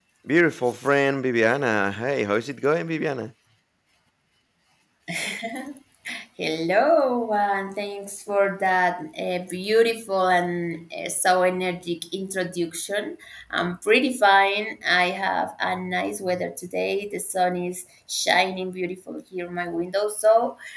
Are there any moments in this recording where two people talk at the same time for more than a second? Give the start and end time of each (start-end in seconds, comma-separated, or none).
none